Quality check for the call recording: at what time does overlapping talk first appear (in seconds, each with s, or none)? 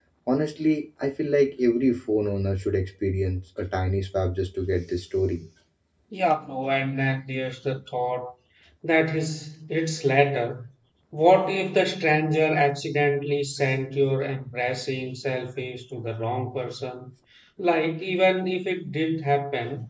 none